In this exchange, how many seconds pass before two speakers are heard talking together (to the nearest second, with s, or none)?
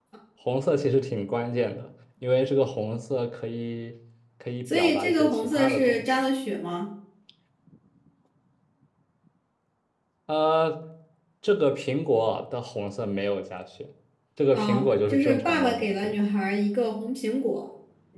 5 s